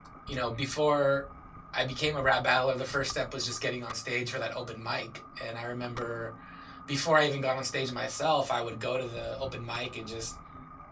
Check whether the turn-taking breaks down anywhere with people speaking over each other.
No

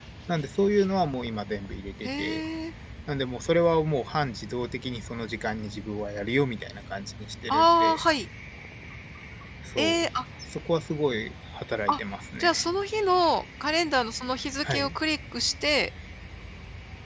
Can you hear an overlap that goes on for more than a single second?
No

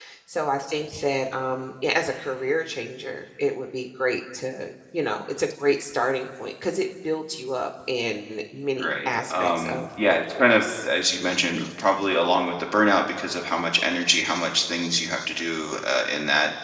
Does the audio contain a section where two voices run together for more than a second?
Yes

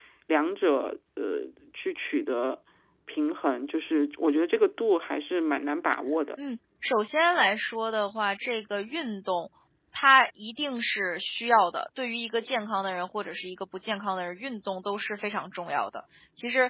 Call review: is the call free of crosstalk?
Yes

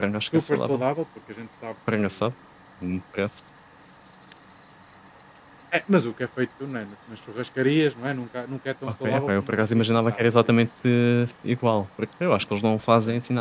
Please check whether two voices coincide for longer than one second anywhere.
Yes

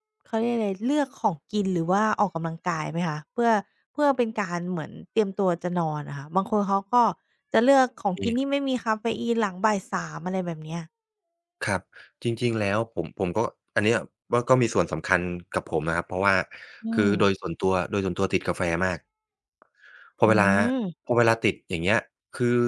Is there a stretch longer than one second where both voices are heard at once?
No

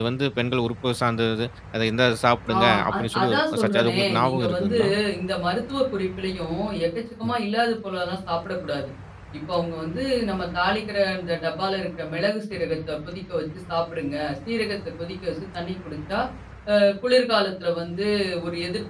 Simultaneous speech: Yes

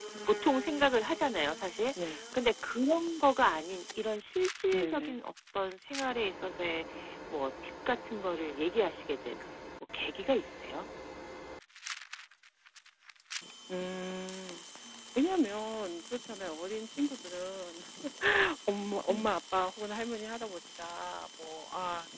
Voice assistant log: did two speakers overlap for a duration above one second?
No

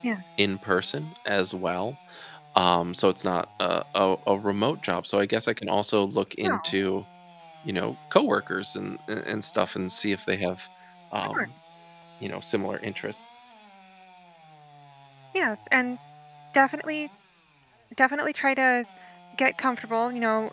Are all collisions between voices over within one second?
Yes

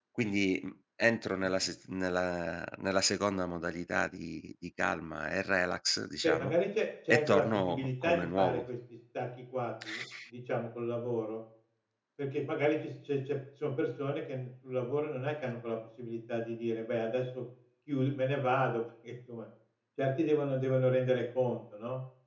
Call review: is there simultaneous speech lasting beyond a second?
Yes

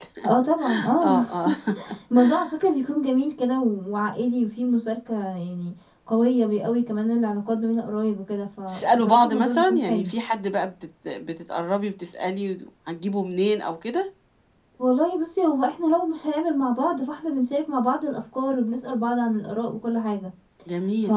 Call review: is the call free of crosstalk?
No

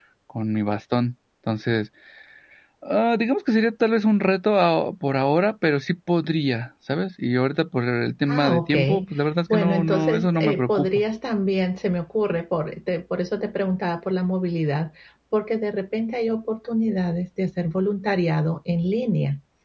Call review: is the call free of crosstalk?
No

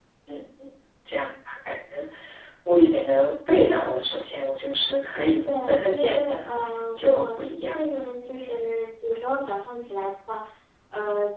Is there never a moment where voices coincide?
No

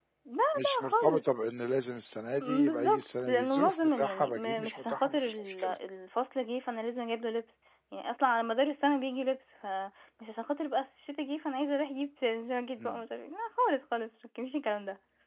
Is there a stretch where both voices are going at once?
Yes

